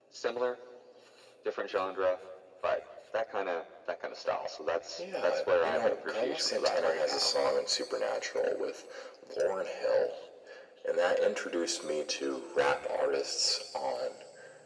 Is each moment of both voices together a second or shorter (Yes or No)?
No